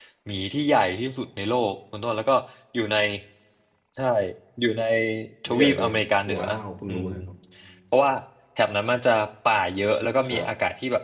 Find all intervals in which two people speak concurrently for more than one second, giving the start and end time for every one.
none

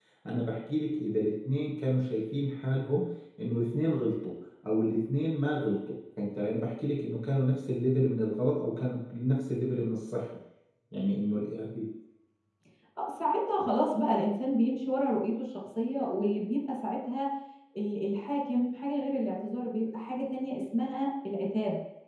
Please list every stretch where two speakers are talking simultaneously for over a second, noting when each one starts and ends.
none

